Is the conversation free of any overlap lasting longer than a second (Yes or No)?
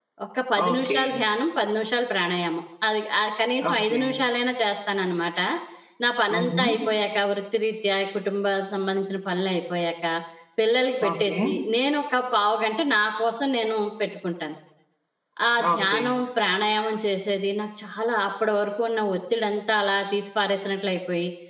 Yes